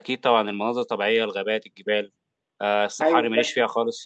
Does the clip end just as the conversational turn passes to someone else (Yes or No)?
No